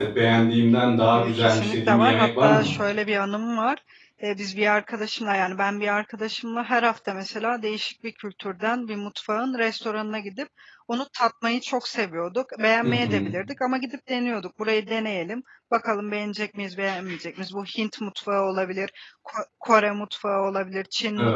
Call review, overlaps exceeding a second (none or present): present